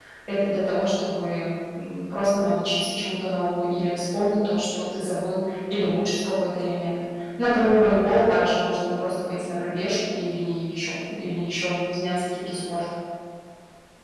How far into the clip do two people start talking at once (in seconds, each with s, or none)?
none